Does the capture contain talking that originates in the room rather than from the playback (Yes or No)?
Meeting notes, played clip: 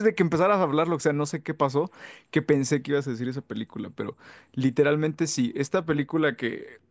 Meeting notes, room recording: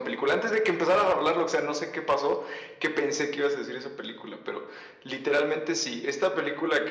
No